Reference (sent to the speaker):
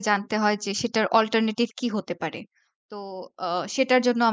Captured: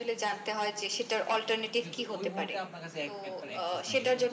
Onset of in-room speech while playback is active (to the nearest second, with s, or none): 2 s